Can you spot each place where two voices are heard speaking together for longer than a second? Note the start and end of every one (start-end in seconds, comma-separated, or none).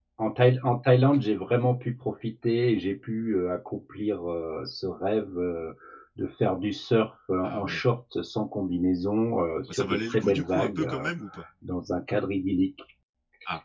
9.7-11.1